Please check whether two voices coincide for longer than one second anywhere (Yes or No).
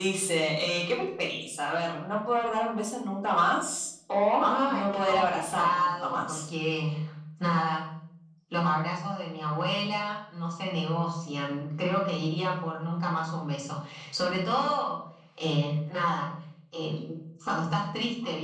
Yes